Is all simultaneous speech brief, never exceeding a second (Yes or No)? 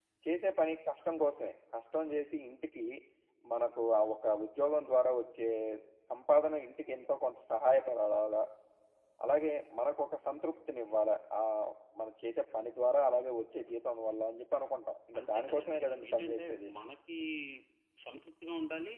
No